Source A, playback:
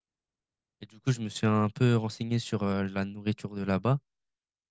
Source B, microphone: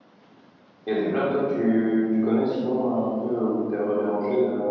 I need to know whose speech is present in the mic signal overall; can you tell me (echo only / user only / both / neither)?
user only